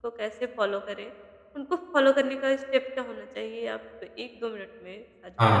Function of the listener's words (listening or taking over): taking over